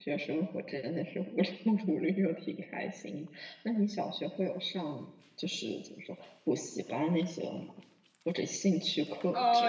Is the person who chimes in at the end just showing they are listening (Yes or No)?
No